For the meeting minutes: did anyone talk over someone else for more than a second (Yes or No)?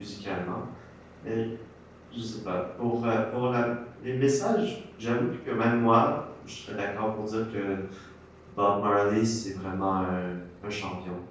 No